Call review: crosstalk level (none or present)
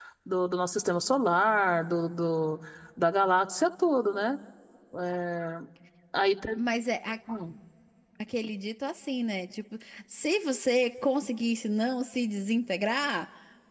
none